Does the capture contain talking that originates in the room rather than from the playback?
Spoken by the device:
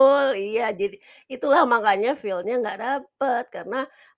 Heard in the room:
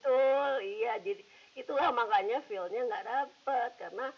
No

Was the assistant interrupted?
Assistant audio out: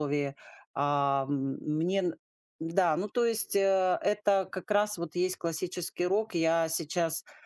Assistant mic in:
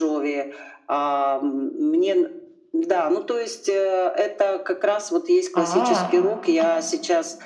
Yes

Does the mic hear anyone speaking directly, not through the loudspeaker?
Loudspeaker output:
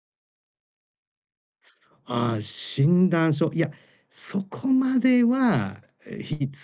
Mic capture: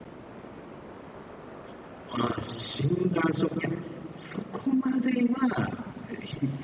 No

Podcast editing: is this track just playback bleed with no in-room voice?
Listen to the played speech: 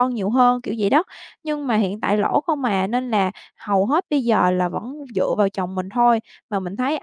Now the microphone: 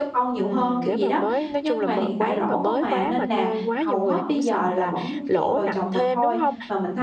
No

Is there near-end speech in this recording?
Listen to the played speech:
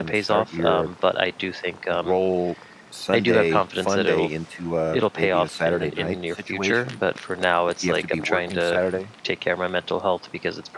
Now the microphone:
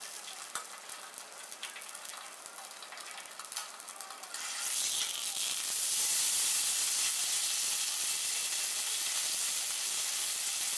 No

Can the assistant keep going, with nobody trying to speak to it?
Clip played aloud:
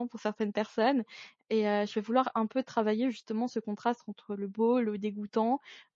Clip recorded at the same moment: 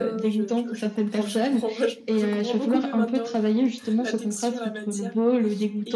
No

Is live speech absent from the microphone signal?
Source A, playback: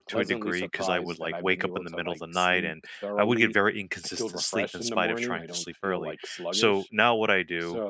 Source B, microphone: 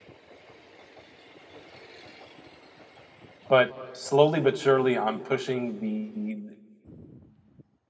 No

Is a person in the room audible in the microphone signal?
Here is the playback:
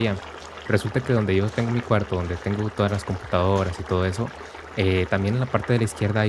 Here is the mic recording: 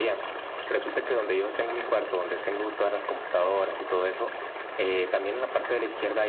No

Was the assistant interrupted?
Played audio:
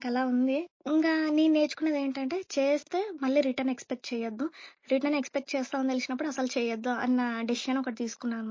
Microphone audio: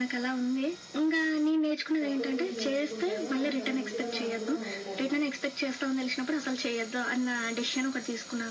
Yes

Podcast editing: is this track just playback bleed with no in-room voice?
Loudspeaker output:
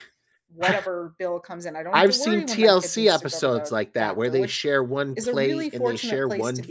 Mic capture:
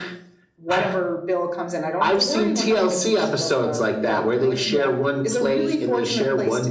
No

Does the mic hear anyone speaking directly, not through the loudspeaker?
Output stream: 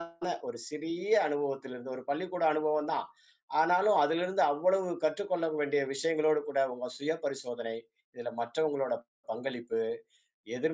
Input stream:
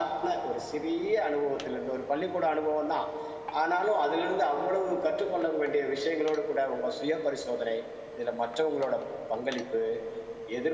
No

